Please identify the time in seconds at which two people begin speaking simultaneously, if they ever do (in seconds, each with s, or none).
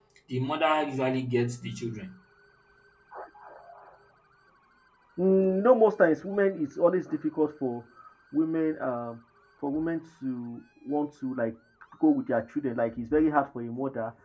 none